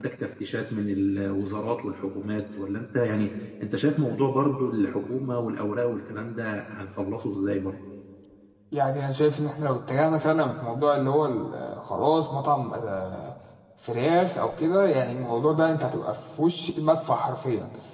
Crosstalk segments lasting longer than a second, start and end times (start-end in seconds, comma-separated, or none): none